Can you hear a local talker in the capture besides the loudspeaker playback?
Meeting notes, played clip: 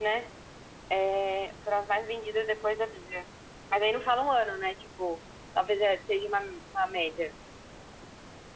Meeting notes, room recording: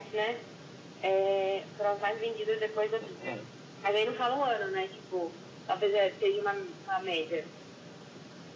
Yes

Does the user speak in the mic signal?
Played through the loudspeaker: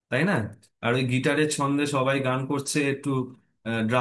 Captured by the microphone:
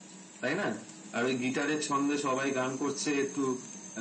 No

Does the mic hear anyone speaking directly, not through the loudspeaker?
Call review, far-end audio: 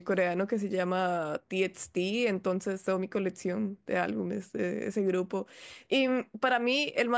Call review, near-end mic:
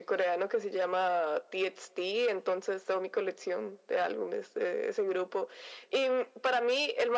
No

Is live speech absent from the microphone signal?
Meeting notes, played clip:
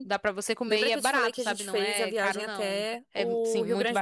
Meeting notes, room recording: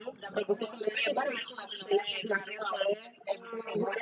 No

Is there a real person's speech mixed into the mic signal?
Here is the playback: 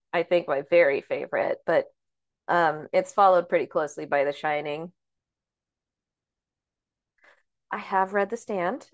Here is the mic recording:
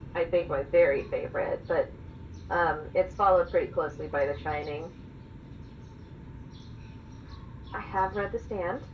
No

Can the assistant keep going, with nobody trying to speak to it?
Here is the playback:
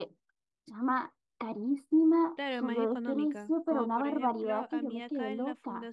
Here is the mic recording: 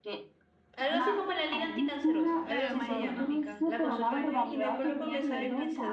No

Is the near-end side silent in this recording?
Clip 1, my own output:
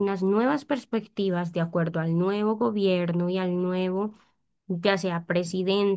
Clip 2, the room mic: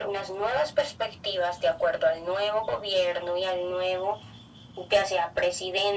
Yes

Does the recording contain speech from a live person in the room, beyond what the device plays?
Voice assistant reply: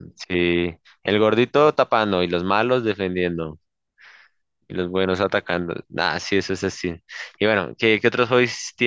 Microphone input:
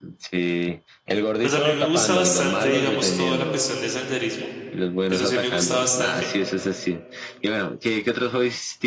Yes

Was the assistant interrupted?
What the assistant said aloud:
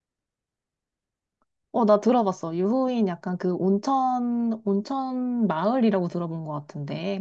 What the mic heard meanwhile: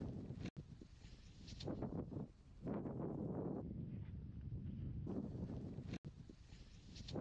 No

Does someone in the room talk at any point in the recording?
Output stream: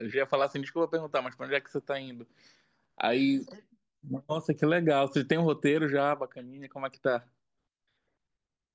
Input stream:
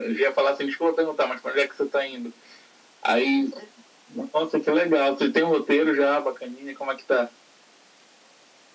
No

